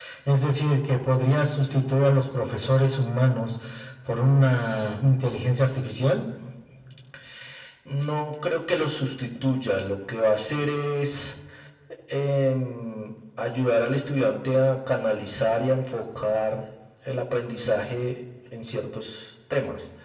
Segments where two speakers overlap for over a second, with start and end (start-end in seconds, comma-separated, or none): none